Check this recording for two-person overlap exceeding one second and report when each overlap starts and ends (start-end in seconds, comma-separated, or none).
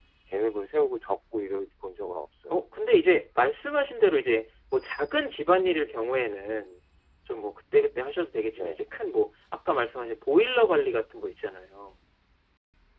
none